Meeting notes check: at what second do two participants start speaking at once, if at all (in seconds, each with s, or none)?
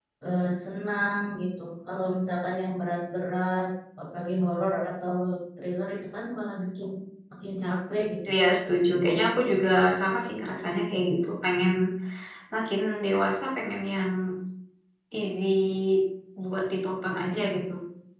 none